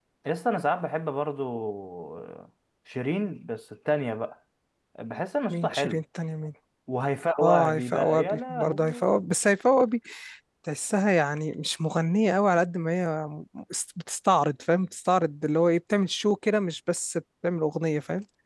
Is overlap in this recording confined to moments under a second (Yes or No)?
No